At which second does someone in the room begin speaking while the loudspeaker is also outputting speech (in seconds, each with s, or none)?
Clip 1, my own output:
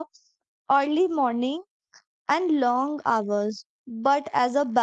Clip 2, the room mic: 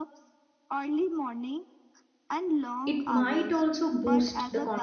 2.8 s